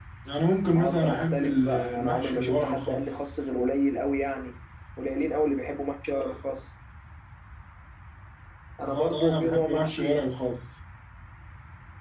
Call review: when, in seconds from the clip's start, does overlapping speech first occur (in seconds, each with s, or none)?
0.8 s